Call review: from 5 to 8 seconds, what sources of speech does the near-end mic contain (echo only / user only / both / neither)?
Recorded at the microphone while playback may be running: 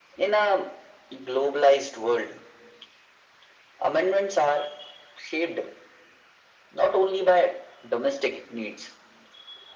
echo only